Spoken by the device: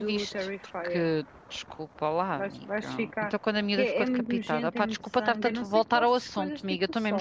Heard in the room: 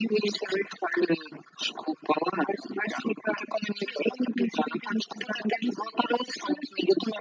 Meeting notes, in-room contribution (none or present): none